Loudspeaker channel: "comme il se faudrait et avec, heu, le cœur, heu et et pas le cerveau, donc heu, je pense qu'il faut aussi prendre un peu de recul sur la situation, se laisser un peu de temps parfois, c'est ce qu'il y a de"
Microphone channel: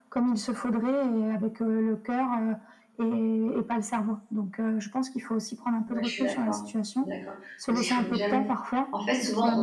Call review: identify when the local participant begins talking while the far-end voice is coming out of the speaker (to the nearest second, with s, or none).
6 s